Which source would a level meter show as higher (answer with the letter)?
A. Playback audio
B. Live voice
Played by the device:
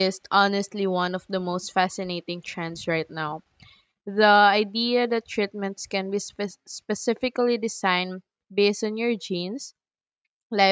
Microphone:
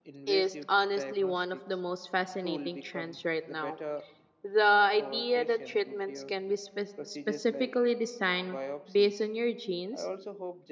A